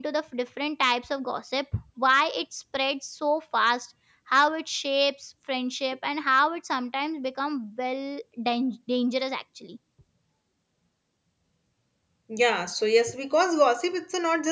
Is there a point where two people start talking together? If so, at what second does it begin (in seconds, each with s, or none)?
none